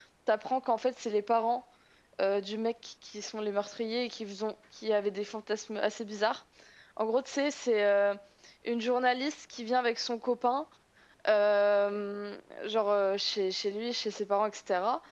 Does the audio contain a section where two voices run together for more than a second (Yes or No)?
No